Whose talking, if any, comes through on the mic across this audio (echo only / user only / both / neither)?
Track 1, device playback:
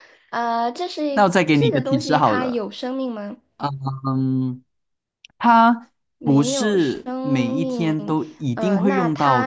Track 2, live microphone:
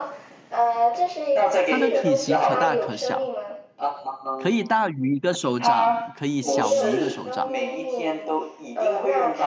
both